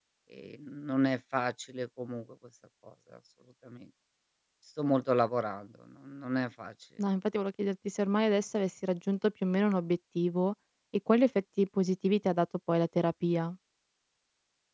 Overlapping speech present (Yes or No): No